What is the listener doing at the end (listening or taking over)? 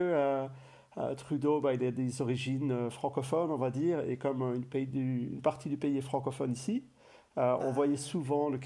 listening